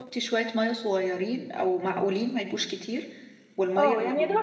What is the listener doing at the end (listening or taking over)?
taking over